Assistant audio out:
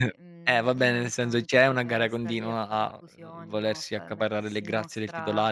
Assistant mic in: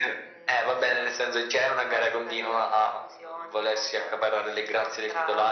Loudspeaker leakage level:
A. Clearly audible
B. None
A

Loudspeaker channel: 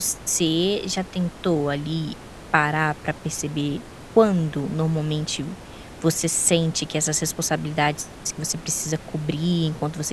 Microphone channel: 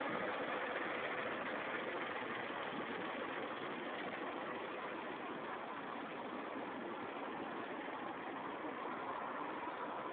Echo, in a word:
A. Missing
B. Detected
A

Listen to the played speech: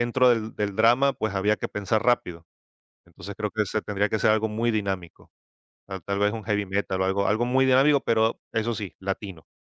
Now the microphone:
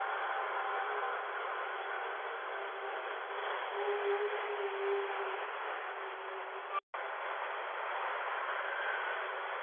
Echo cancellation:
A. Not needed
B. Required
A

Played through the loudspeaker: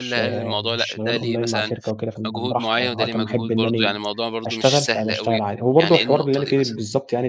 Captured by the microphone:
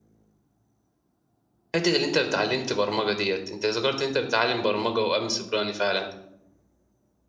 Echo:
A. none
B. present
A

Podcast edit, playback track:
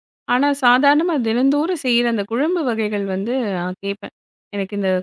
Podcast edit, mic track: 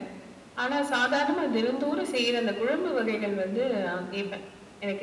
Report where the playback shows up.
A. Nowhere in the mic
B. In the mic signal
B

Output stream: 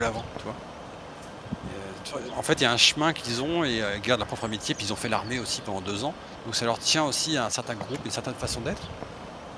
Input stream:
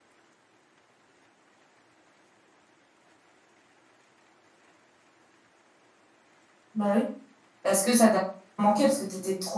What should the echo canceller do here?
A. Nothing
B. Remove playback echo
A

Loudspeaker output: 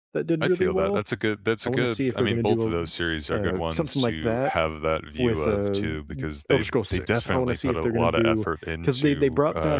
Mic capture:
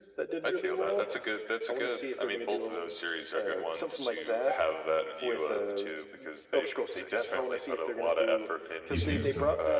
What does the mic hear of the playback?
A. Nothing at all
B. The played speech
B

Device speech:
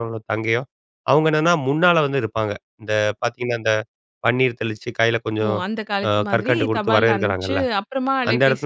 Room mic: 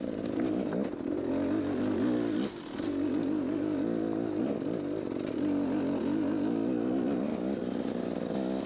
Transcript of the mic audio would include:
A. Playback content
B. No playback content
B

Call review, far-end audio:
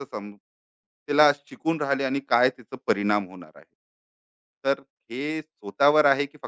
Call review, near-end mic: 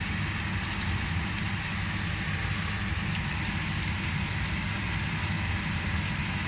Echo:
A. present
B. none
B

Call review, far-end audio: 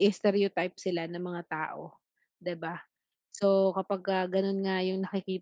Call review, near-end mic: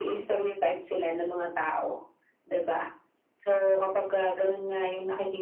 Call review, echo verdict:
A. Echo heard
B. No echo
A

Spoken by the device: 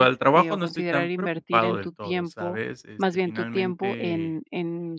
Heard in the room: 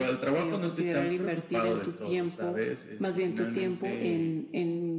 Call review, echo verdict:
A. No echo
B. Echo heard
B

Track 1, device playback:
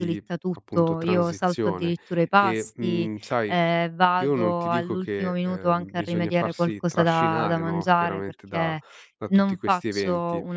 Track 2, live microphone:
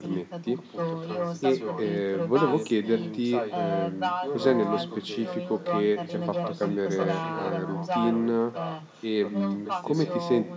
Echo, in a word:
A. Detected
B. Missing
A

